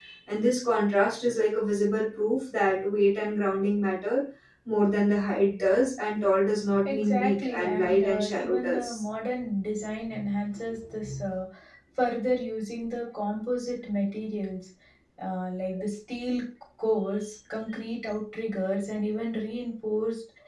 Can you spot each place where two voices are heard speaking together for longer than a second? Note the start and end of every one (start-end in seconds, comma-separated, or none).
6.8-9.0